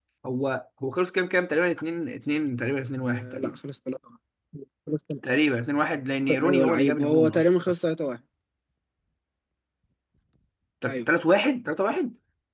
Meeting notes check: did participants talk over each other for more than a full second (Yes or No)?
Yes